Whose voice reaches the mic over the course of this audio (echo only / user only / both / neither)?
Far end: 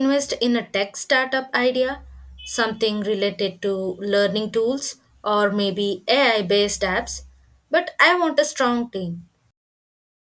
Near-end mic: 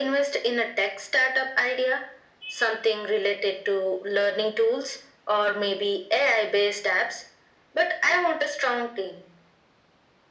echo only